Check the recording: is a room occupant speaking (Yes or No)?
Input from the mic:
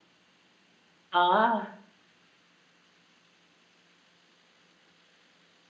Yes